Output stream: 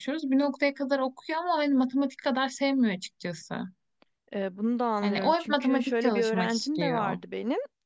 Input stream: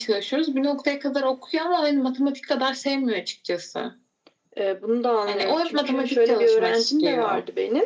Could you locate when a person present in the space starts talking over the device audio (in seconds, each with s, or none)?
none